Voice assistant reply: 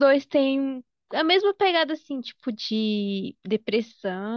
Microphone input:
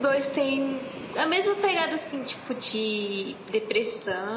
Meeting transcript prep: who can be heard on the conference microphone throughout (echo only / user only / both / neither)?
echo only